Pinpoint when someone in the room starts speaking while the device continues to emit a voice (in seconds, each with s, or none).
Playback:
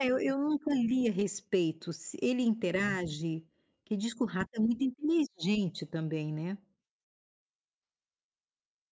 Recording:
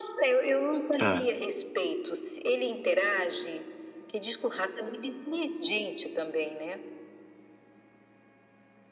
1.0 s